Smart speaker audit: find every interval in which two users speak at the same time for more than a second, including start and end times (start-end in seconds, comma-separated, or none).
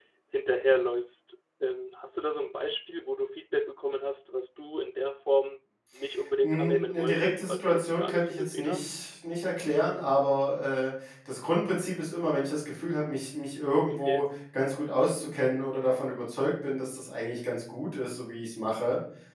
6.4-8.8